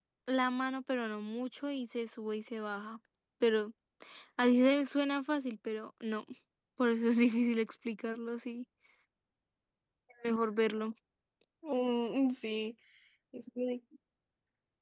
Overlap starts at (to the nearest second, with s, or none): none